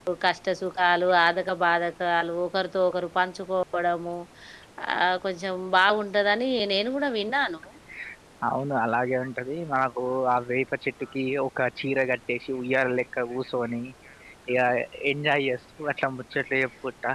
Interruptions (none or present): none